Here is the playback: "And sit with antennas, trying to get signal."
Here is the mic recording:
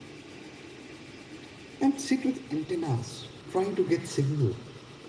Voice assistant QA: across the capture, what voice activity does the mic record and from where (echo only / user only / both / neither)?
echo only